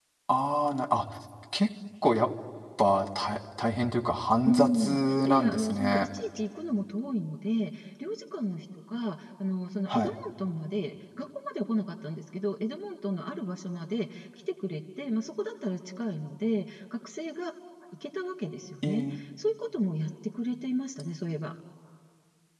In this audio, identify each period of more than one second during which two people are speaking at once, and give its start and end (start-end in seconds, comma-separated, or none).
4.4-6.1